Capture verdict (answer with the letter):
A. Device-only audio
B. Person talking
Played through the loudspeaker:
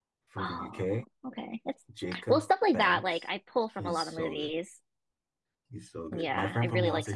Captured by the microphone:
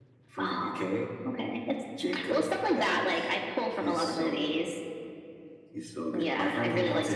A